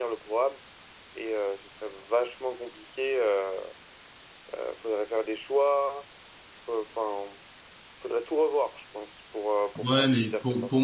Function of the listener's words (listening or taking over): taking over